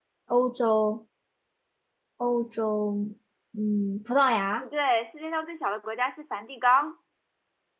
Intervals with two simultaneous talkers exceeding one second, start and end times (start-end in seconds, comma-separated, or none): none